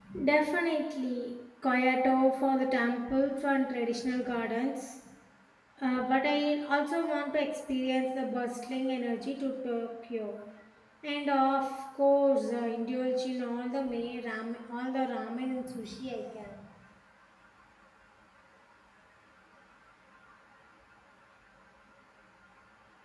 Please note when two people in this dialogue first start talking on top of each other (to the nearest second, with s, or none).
none